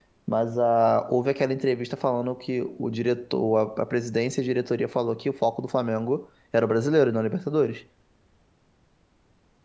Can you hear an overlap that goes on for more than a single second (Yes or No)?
No